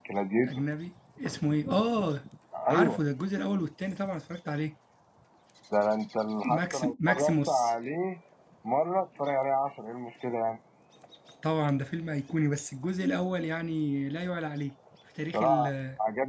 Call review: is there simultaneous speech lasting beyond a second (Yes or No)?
Yes